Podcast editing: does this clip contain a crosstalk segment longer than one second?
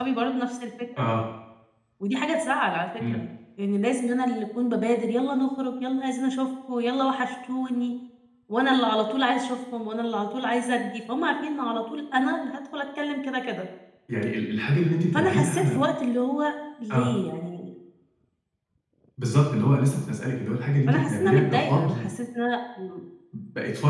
Yes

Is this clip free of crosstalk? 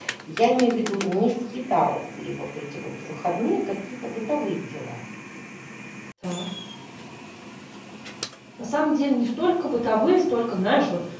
Yes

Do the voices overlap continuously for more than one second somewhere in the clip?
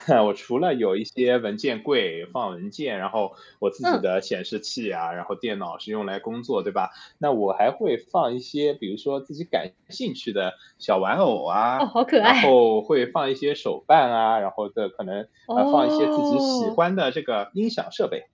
Yes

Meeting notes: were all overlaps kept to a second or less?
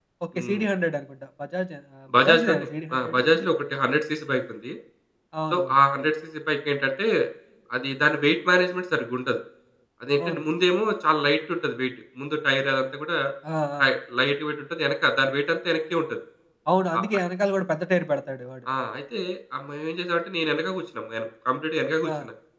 No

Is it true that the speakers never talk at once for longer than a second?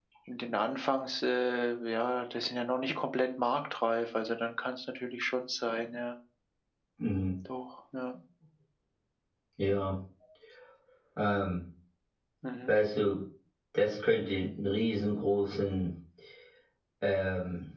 Yes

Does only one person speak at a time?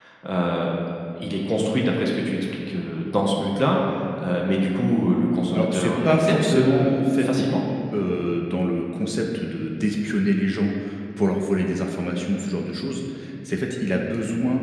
No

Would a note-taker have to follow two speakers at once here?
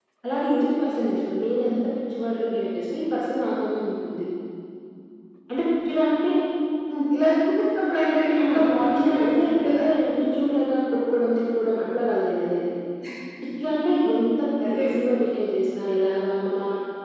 Yes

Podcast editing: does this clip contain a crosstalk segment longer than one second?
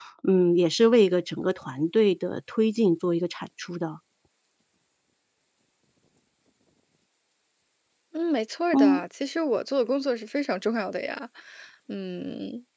No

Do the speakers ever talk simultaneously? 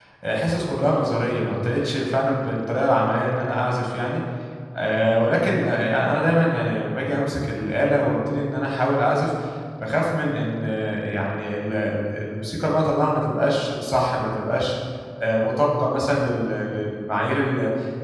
No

